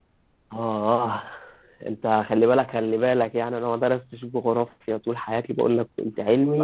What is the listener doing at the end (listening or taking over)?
taking over